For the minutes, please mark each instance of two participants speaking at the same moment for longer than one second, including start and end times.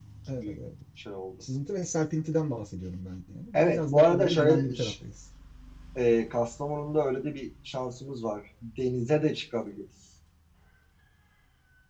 3.5-4.9

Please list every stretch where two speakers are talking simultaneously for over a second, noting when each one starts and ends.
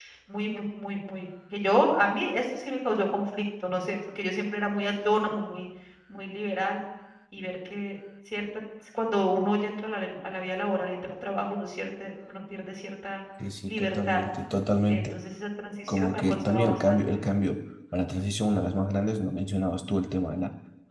15.9-17.2

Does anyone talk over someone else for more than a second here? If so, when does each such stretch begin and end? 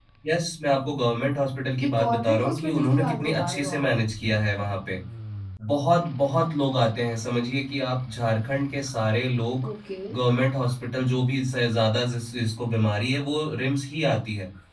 1.8-3.8

